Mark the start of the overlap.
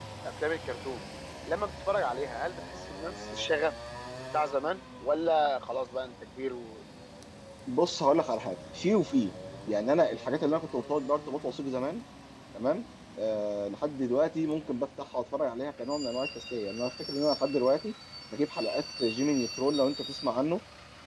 none

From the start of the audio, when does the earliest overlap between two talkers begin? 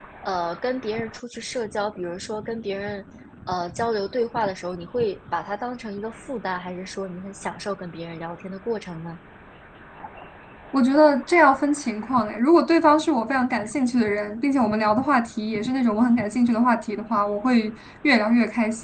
none

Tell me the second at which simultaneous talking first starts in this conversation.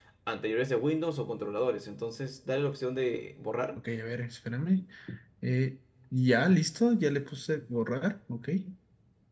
none

